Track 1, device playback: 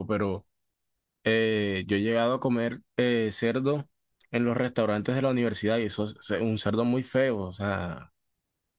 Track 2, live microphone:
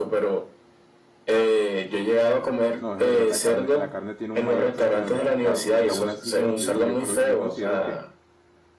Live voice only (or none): No, es verdad, la carne, la carne tiene un mayor precio en el mercado. Y aún así, como te digo, yo creo, yo considero que